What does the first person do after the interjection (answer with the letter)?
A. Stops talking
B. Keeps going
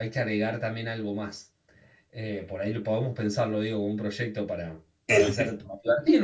B